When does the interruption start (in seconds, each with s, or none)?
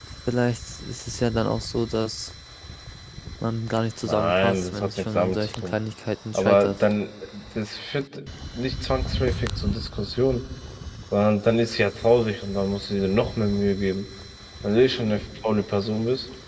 4.0 s